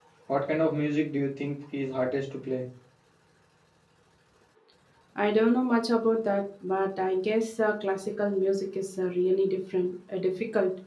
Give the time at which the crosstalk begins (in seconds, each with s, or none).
none